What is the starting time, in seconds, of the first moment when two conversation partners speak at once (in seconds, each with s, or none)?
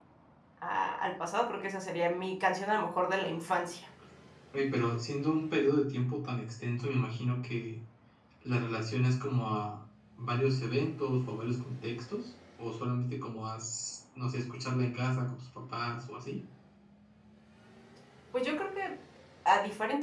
none